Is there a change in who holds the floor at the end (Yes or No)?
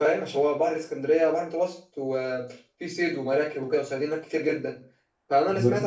No